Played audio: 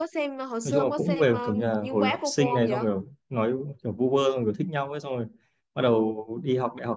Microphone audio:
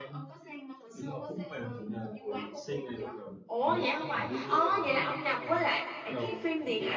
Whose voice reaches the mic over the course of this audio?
both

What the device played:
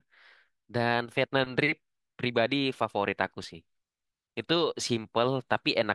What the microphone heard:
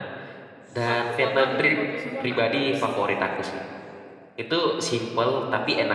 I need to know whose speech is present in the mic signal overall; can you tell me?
both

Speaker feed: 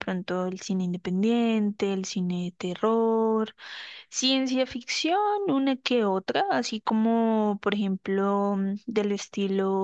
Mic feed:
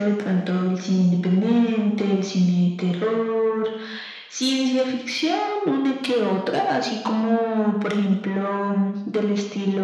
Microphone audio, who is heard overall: echo only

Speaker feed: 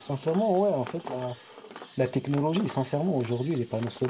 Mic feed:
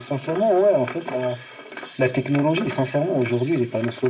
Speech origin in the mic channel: echo only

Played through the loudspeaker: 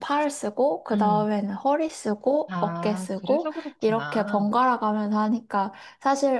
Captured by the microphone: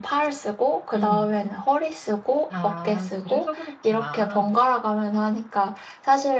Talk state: echo only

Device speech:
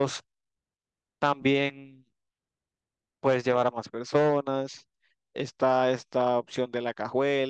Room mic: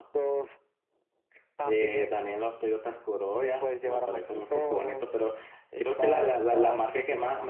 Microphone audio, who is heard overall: both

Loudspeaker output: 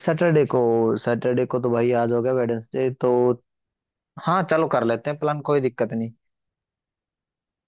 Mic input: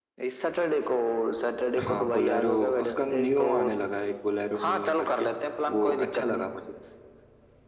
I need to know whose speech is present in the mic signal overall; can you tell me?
both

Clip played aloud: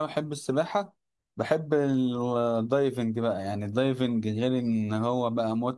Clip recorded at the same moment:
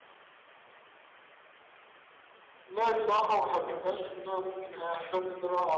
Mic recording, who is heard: user only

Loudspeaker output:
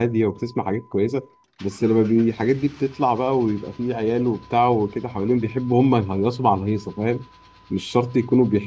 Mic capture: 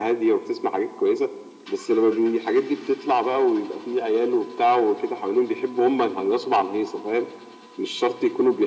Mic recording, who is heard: echo only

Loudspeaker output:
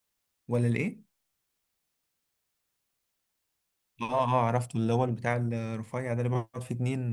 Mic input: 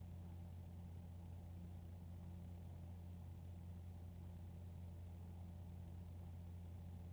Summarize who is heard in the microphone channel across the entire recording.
neither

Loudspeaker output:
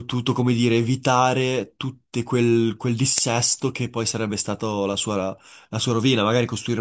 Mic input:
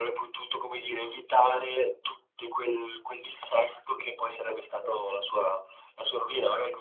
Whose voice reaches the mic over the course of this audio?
echo only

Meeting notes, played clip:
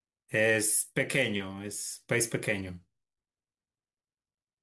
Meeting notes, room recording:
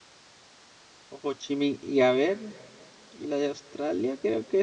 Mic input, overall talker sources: user only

